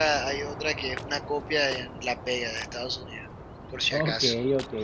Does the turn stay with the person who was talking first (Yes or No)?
No